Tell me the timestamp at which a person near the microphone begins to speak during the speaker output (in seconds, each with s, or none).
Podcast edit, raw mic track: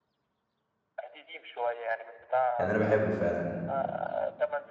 2.6 s